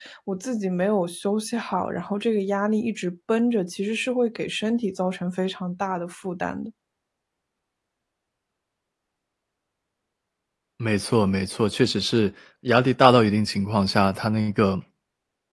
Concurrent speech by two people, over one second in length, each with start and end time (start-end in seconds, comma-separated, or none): none